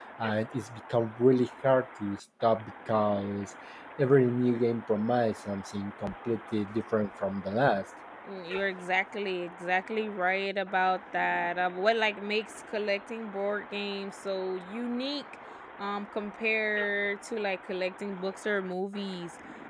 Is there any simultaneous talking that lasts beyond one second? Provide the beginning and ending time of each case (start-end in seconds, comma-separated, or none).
none